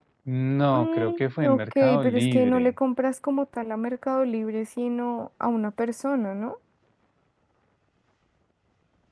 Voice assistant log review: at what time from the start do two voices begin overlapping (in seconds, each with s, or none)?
0.7 s